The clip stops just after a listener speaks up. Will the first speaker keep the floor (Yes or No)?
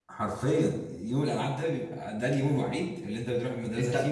No